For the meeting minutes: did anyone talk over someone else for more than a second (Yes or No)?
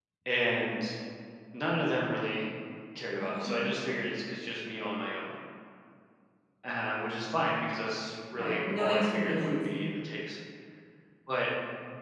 Yes